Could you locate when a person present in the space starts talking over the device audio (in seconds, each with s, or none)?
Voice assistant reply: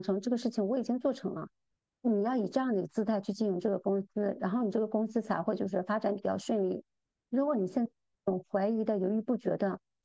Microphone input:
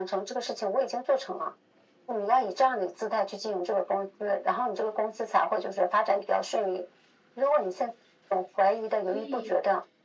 9.0 s